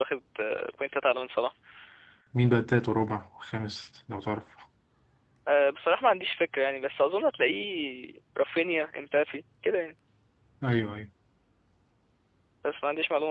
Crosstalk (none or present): none